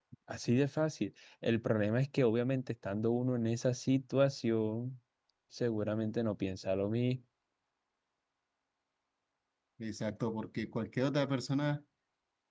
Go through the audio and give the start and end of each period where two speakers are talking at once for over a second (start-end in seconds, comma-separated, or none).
none